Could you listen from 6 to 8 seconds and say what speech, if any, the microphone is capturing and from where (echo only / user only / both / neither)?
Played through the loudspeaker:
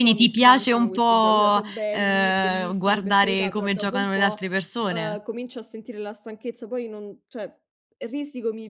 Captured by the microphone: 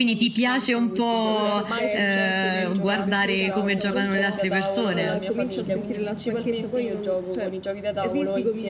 both